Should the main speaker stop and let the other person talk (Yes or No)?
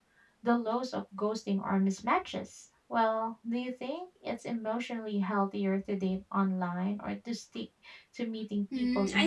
Yes